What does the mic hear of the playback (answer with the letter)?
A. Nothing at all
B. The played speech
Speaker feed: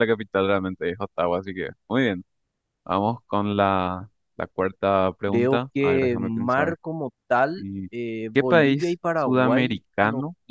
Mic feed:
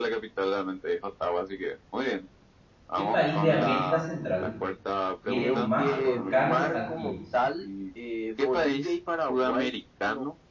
B